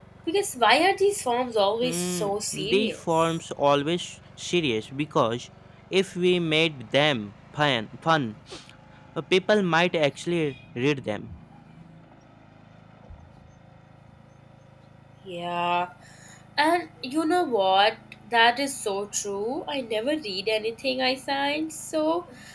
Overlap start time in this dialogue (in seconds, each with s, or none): 1.8 s